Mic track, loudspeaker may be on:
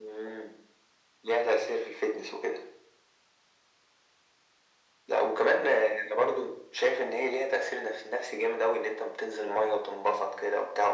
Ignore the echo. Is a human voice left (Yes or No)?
No